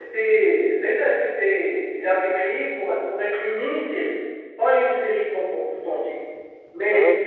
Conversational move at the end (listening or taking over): listening